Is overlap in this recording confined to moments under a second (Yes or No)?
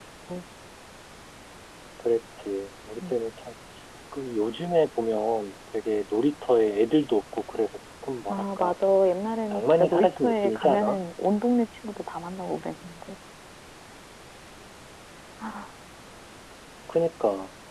No